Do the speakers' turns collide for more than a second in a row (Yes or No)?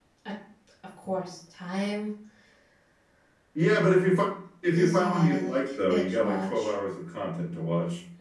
Yes